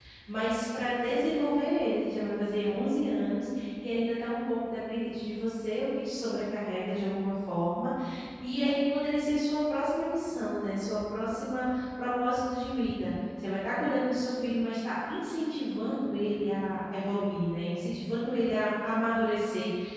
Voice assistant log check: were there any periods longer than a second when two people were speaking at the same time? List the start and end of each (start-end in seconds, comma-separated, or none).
none